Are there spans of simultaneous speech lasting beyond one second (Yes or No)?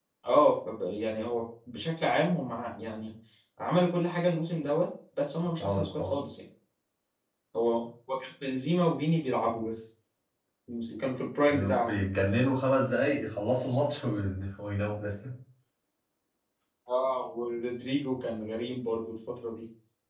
No